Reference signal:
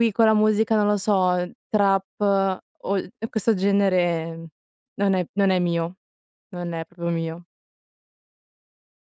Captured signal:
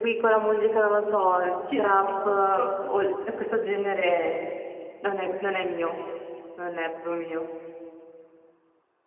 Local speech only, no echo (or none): Ti rendi conto?